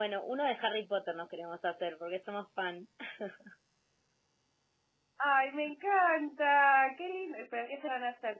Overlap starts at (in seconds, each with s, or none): none